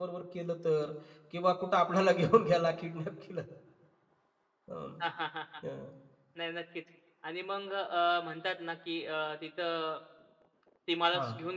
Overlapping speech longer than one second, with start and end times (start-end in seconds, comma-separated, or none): none